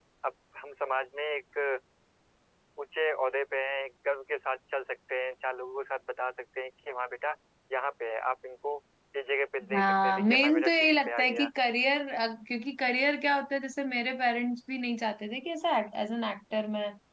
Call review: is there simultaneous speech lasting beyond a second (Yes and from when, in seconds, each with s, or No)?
Yes, from 9.6 s